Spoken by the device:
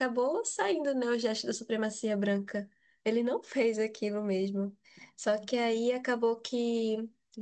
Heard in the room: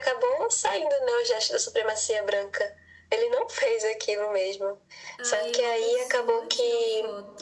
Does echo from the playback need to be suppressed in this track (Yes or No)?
Yes